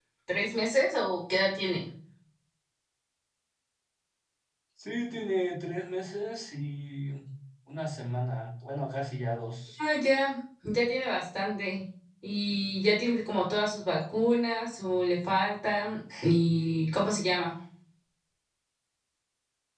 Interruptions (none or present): none